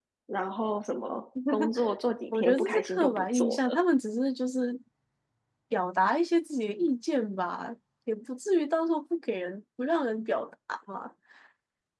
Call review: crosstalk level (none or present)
present